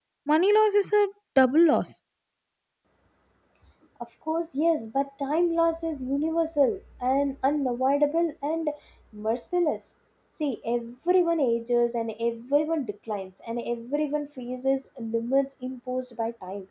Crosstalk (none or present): none